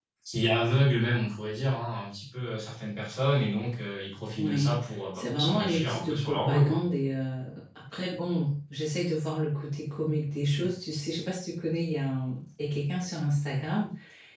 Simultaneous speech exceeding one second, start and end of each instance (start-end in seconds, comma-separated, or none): 5.2-6.8